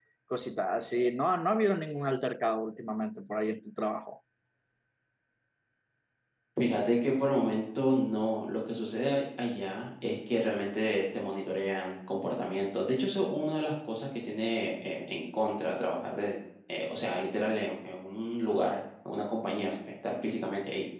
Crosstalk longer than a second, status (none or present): none